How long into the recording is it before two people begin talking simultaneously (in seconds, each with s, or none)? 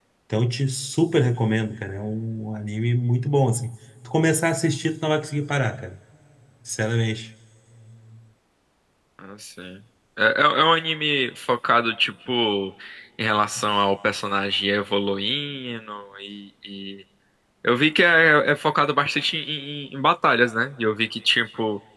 none